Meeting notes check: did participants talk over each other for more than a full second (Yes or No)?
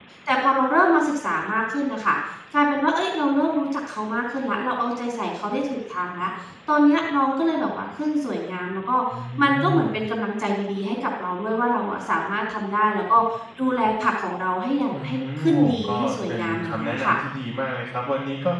Yes